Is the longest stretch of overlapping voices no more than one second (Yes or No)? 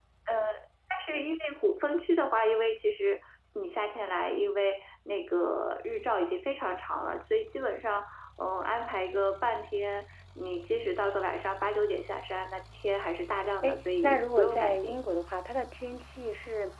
No